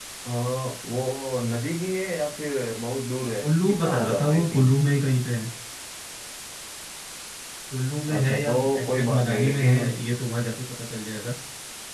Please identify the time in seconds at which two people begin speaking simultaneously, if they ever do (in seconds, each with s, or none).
3.4 s